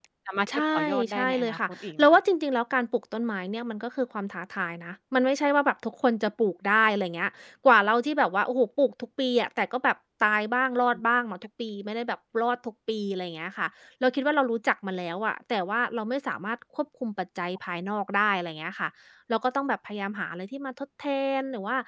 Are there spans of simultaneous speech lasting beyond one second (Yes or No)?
Yes